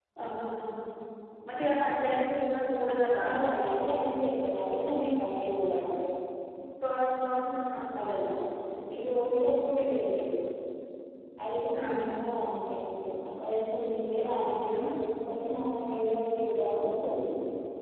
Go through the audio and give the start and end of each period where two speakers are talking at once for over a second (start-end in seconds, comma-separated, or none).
none